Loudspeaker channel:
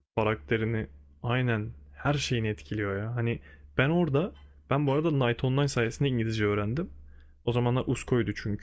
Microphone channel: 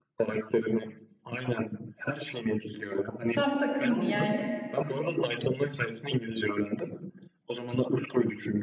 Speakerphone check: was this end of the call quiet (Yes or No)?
No